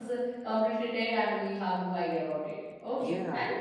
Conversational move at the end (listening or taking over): taking over